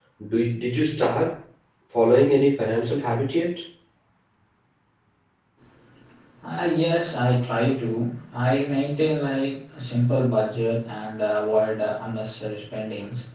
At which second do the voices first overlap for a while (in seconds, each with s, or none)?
none